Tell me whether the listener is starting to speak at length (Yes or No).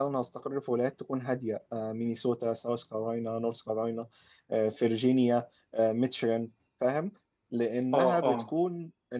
No